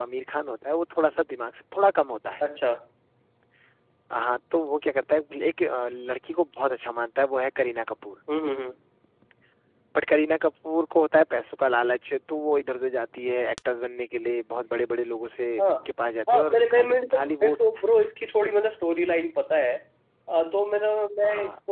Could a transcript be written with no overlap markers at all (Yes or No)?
No